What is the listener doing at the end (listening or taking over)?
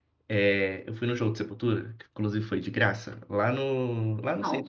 listening